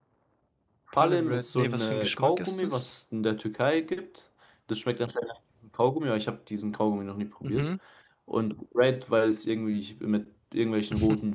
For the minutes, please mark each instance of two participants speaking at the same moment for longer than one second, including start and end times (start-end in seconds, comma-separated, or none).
1.0-2.9